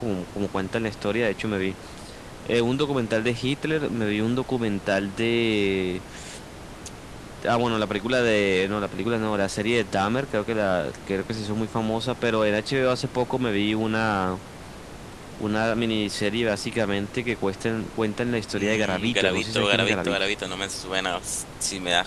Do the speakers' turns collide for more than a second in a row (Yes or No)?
Yes